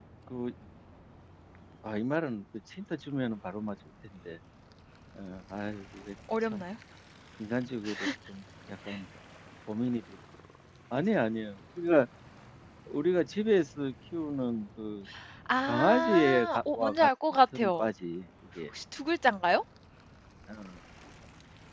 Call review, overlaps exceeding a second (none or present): present